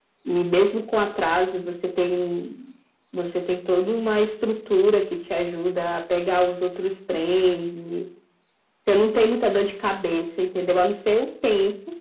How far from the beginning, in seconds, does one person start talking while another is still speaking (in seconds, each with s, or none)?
none